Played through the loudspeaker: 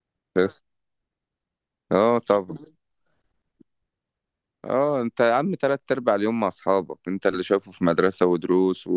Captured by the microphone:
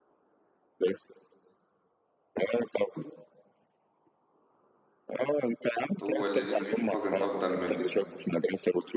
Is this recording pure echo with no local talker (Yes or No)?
No